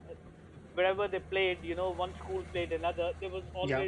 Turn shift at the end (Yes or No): No